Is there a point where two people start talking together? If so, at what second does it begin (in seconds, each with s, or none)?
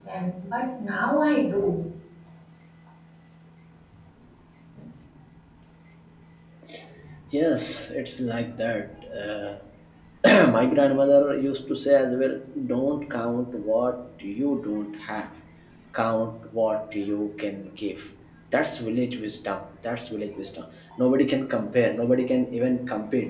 none